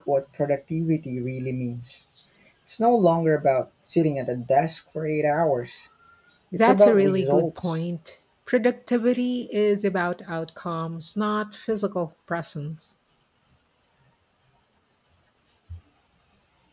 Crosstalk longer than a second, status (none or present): present